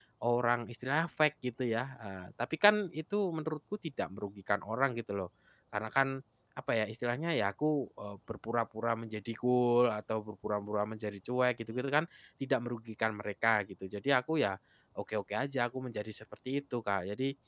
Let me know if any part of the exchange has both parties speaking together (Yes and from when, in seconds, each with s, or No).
No